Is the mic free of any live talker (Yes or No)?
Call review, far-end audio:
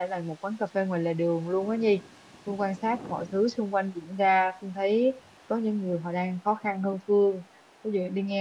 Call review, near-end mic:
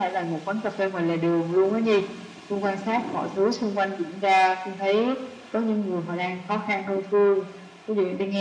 Yes